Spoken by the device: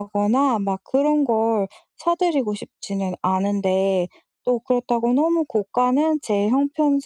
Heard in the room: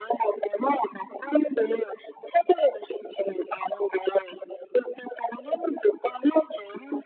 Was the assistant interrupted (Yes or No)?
No